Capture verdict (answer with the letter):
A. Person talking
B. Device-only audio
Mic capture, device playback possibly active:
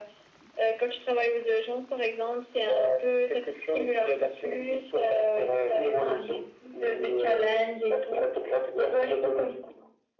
B